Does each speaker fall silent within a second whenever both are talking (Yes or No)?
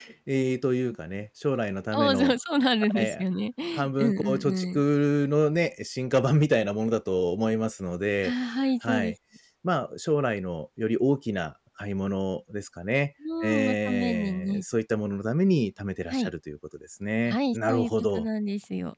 No